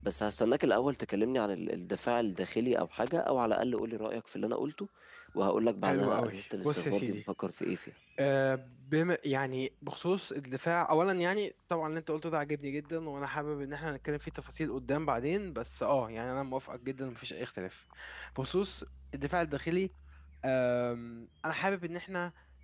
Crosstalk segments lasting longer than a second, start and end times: 5.8-7.2

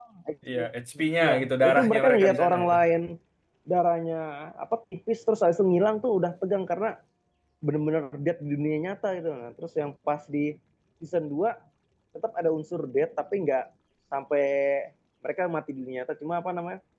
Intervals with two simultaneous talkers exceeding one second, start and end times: 1.2-2.8

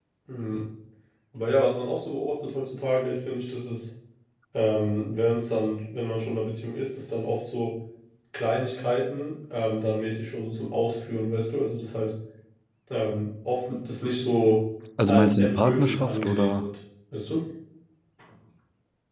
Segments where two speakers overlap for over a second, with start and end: 15.1-16.7

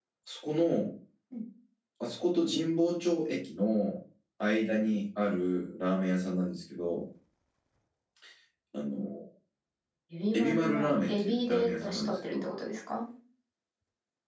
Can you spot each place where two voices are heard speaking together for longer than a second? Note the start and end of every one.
10.3-12.5

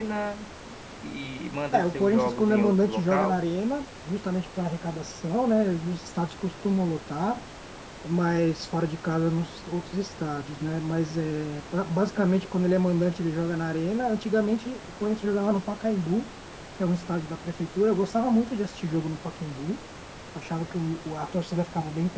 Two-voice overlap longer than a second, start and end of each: 1.7-3.4

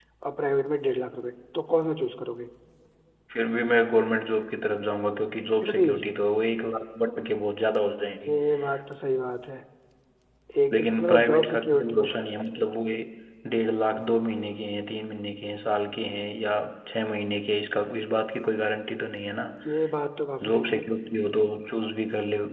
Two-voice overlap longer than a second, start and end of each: 10.7-12.1

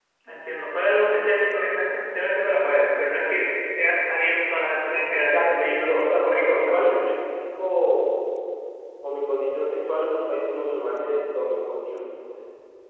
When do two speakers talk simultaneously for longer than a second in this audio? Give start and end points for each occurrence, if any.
5.1-7.0

